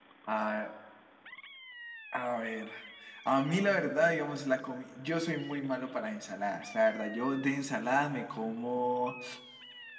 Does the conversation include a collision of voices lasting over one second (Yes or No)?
No